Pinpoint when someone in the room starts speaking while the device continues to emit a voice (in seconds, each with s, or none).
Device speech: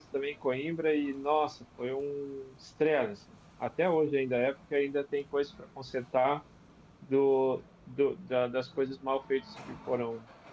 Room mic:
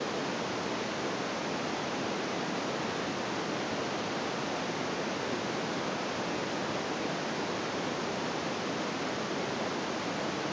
none